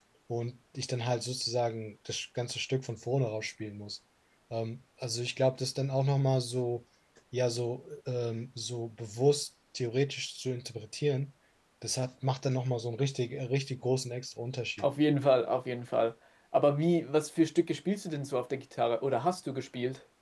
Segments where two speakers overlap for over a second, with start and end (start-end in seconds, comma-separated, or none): none